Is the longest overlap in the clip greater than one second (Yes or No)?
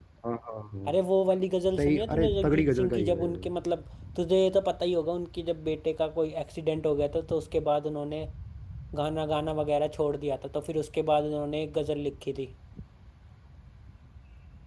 Yes